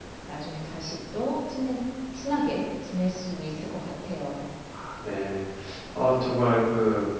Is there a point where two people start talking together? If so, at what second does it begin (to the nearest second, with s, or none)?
none